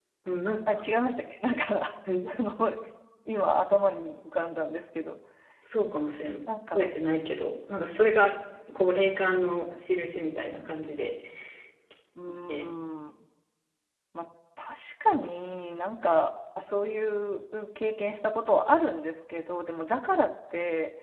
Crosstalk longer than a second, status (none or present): none